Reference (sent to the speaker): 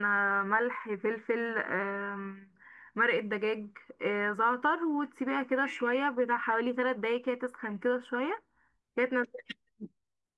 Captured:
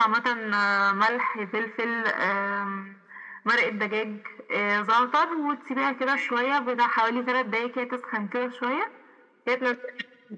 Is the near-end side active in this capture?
No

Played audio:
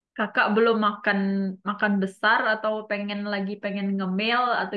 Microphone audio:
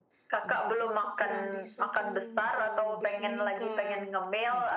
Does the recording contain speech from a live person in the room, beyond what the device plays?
Yes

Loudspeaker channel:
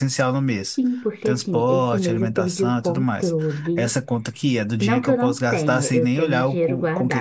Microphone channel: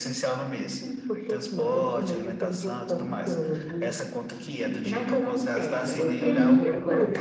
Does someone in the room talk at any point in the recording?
Yes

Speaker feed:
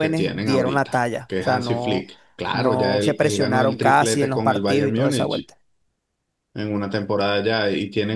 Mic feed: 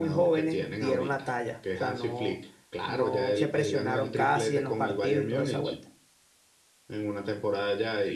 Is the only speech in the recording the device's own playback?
Yes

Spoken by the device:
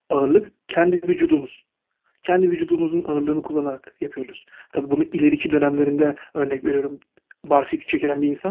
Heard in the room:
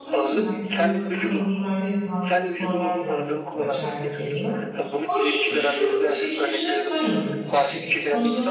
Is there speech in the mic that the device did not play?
Yes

